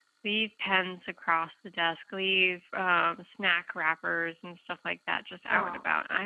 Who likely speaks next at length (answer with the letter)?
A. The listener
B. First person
B